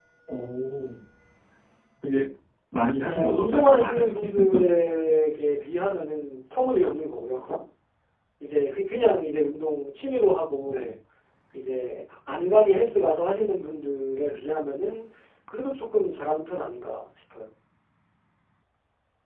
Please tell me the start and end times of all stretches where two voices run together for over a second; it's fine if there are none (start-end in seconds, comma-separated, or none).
3.0-4.5